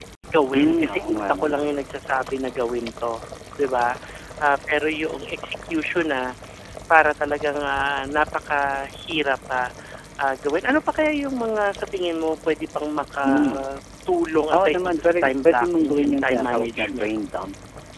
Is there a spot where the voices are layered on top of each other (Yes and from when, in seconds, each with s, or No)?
Yes, from 0.5 s